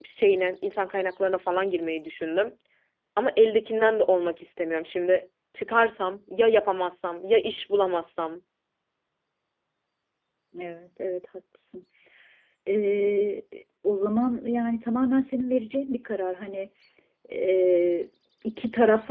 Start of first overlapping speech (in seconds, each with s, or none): none